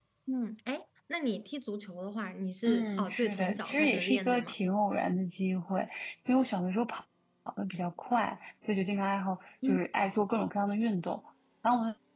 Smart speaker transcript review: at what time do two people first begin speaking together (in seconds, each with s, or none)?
2.6 s